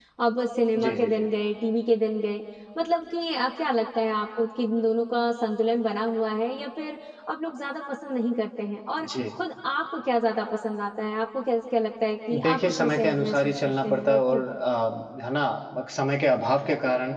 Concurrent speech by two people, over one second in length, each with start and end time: 12.3-14.4

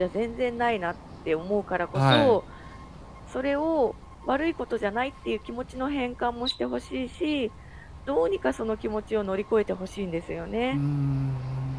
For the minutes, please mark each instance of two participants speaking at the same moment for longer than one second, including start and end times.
none

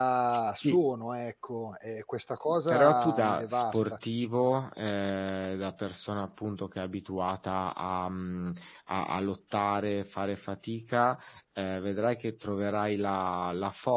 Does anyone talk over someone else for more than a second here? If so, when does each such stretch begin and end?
2.7-4.0

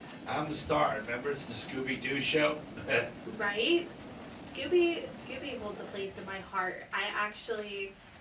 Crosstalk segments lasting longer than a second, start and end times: none

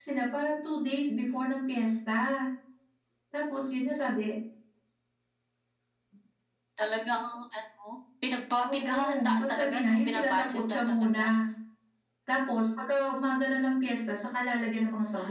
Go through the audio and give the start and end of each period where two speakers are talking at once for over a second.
8.6-11.3

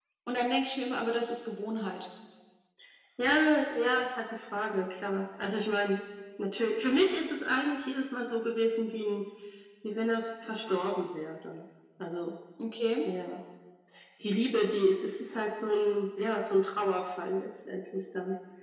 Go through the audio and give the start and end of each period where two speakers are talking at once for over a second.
none

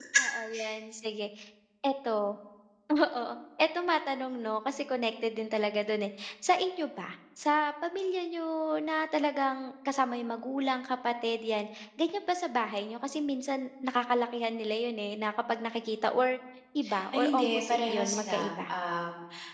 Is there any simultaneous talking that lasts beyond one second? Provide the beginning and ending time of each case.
17.1-18.7

